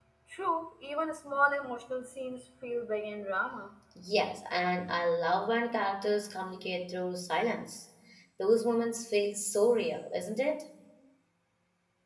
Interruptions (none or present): none